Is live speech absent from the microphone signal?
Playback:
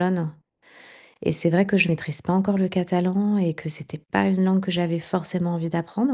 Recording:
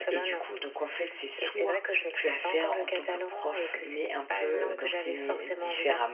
No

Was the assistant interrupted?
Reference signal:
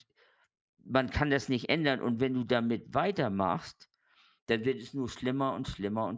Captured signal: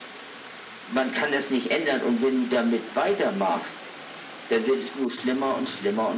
No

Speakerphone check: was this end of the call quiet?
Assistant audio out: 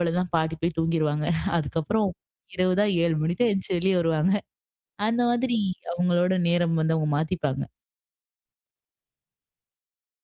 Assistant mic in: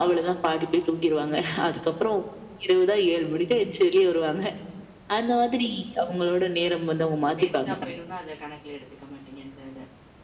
No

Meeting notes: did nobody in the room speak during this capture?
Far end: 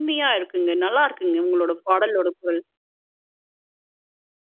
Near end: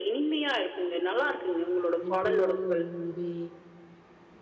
No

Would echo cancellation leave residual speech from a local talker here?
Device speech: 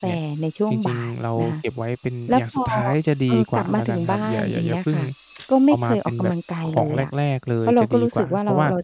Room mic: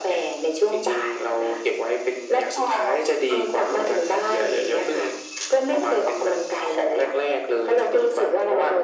No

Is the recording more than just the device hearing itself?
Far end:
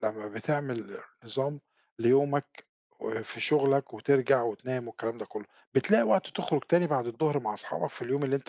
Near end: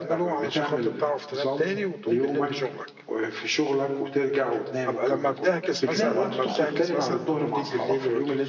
Yes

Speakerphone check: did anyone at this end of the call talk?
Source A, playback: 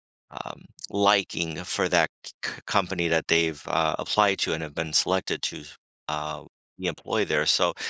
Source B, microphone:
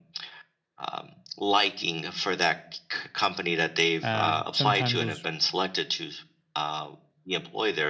Yes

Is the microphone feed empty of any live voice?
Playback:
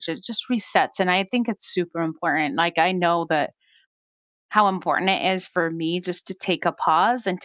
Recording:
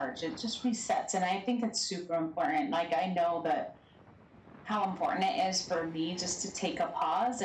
Yes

